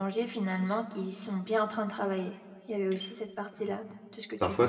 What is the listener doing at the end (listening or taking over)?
taking over